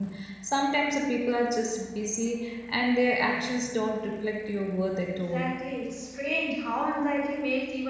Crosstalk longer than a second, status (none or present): none